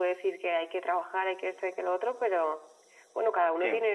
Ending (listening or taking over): listening